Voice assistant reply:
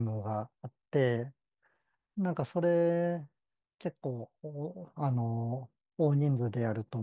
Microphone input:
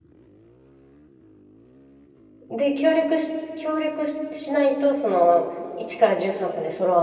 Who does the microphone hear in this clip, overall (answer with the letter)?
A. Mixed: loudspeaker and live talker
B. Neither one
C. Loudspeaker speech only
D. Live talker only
D